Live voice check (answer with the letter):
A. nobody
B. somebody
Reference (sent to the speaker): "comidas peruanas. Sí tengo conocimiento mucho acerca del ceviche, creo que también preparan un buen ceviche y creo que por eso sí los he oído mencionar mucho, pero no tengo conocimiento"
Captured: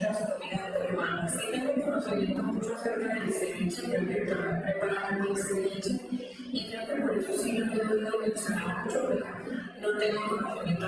A